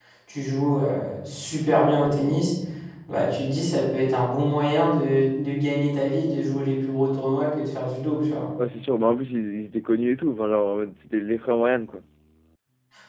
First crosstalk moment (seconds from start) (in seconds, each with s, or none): none